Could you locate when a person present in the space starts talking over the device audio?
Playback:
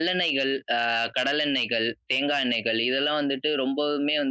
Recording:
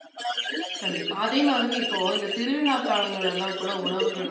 1 s

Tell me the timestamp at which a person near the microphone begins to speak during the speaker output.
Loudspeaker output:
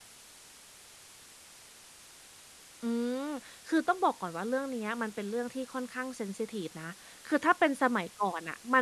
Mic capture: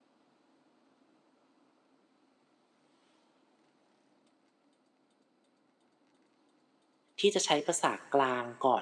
7 s

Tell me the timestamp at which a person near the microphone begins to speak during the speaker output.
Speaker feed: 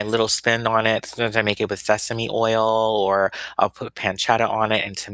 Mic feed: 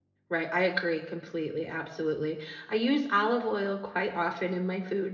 0 s

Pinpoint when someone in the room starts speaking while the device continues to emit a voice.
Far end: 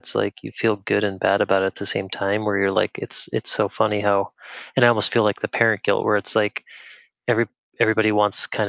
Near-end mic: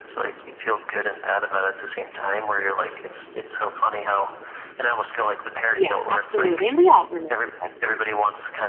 6 s

